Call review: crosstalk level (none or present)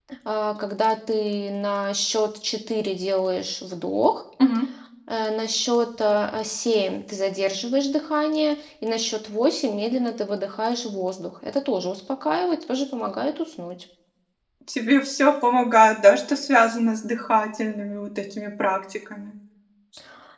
none